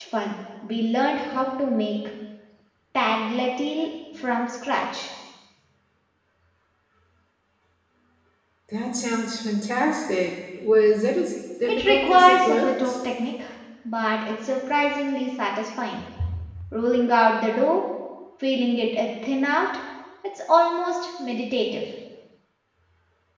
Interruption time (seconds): 11.7 s

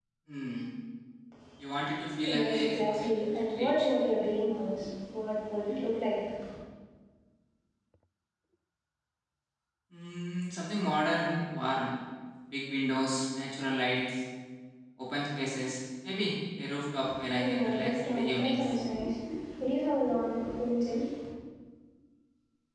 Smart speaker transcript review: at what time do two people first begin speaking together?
2.2 s

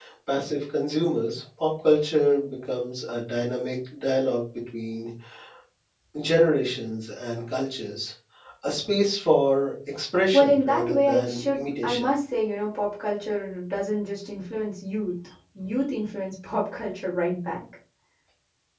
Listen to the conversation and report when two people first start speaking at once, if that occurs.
10.3 s

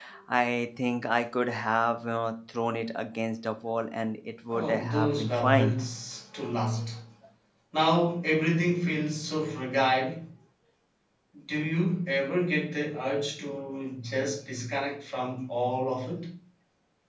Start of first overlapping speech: 4.5 s

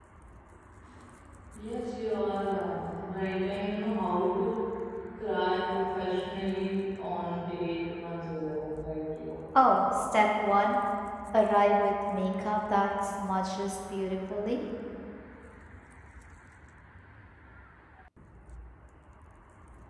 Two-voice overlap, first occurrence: none

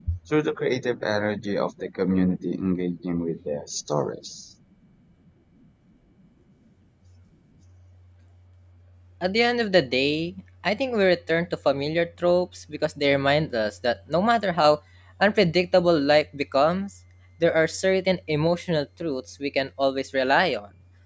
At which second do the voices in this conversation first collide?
none

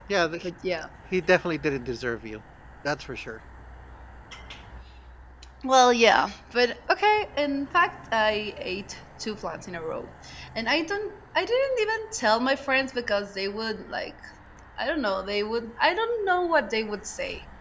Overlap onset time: none

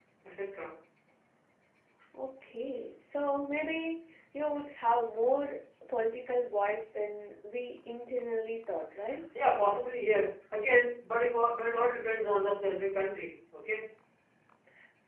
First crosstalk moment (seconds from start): none

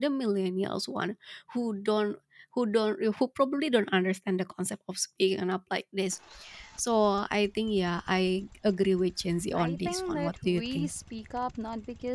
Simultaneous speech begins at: 9.5 s

